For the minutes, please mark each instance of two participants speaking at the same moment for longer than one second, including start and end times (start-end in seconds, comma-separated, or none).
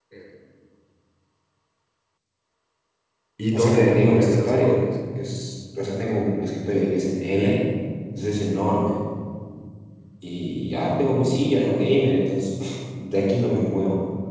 3.5-4.8